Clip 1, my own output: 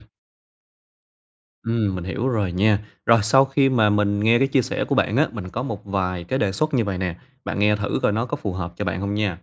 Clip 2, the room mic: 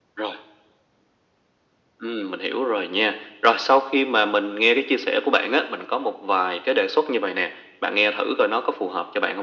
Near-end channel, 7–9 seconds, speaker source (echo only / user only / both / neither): echo only